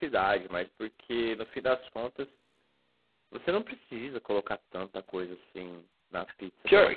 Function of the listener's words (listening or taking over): taking over